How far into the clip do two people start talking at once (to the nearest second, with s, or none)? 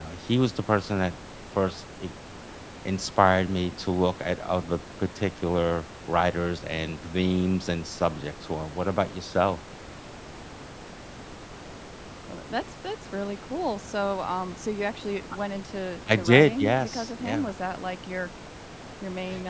16 s